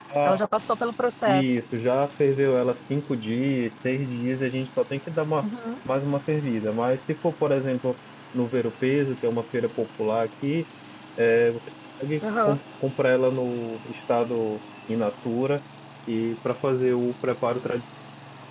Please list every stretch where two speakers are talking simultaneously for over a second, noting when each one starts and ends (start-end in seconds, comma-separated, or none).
none